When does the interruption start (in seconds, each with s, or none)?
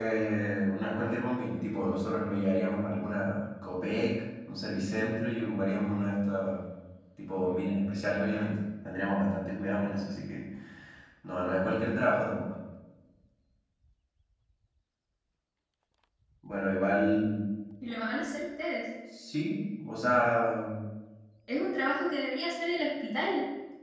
none